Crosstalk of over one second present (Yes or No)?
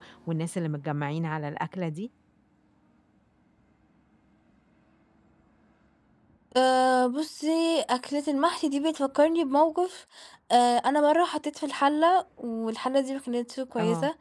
No